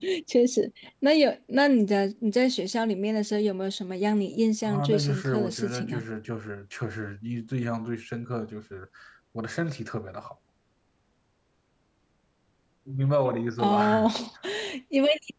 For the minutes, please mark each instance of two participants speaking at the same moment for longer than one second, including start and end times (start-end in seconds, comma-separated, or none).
4.6-6.0